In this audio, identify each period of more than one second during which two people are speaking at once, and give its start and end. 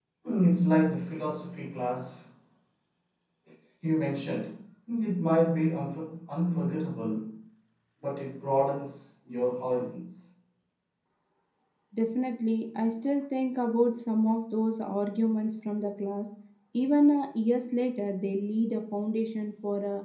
none

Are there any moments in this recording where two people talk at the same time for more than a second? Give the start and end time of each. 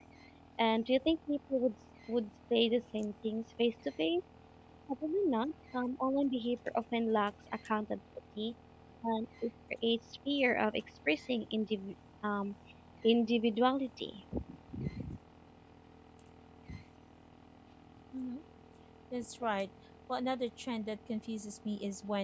none

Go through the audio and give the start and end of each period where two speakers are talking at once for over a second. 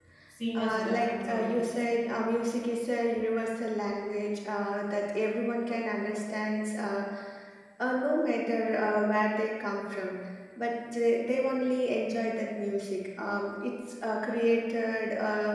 0.6-1.8

